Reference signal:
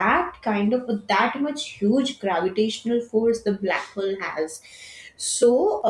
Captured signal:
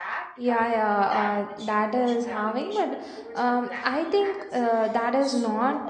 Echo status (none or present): present